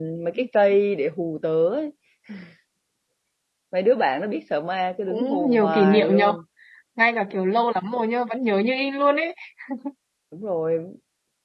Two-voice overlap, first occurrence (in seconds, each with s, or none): 5.1 s